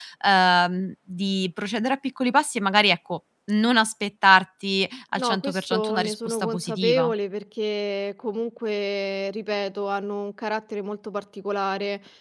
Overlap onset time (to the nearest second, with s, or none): 5 s